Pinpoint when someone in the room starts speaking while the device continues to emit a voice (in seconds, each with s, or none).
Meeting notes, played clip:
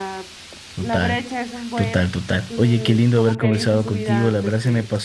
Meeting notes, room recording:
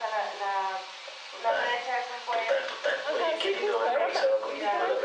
3.0 s